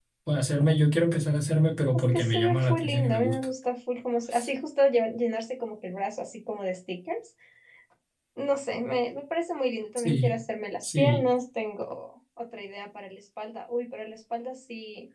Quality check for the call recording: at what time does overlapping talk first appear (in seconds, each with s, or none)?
1.9 s